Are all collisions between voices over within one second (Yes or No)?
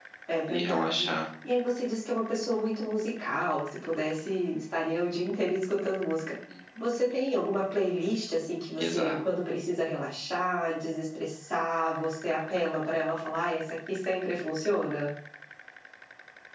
Yes